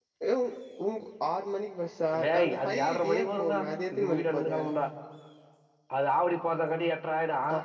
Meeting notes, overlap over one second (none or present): present